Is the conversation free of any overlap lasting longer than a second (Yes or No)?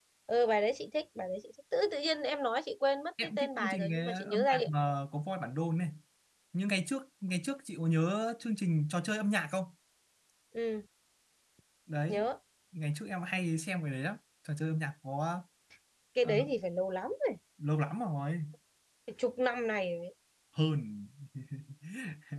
No